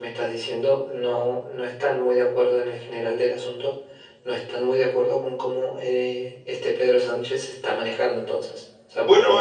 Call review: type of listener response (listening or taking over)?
listening